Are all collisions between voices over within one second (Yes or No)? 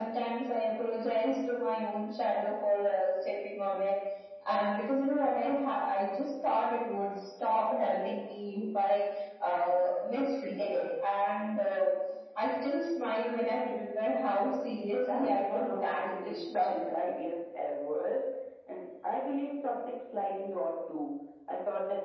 No